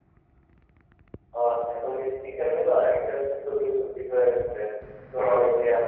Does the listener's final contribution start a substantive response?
No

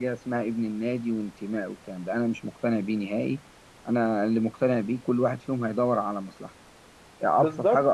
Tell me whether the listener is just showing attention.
No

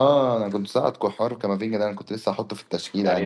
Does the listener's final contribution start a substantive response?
Yes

